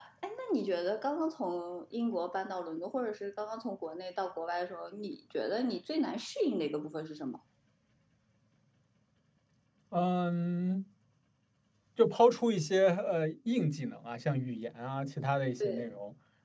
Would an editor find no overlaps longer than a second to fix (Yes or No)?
Yes